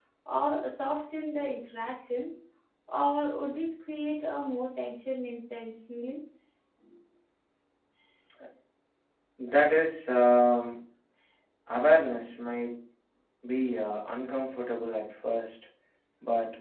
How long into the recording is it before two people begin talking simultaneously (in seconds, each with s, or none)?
none